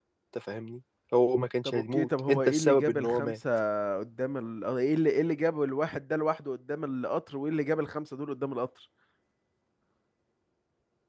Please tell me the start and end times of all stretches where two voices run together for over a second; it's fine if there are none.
1.6-3.4

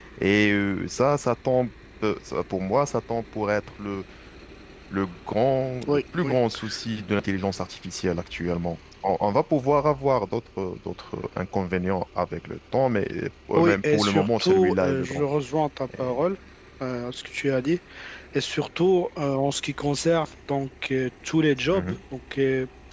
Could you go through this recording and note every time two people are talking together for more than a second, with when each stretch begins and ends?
13.6-15.2

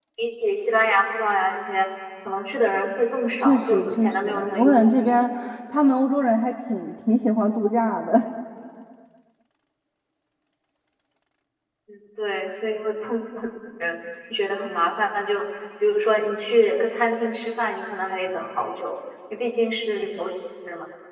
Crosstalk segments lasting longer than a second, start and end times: 3.4-5.2

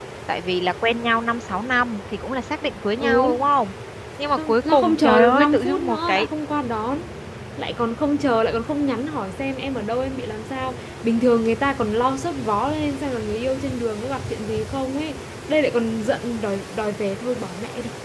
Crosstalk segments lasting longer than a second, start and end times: 4.4-6.3

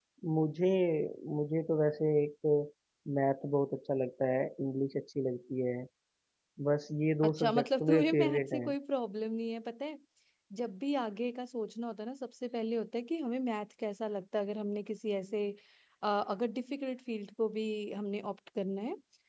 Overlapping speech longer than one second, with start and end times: 7.2-8.7

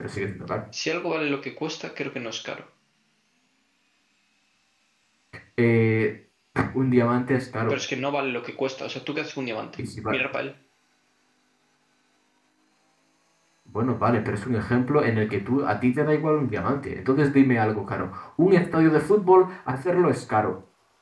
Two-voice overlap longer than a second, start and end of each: none

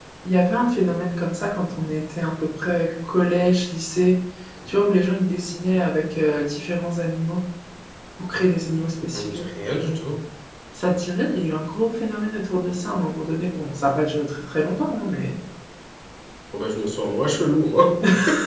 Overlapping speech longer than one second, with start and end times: none

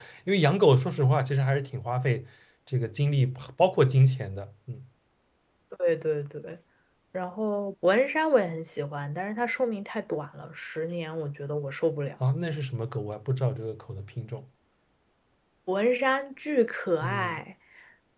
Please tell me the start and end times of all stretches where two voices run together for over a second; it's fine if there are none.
none

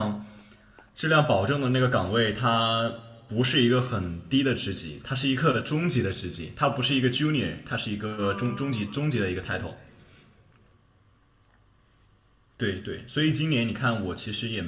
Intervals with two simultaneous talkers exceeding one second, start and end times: 8.1-9.6

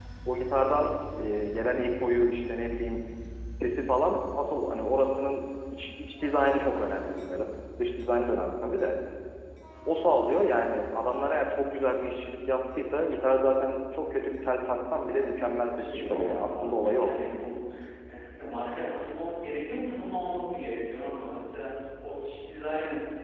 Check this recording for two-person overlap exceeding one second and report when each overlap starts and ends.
15.8-17.1

